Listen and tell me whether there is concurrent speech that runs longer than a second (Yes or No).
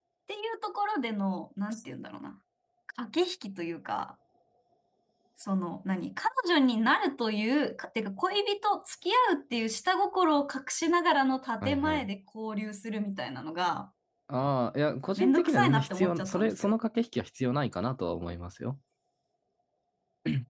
Yes